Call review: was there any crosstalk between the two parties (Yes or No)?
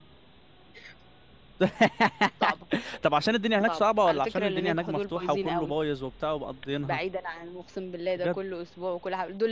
Yes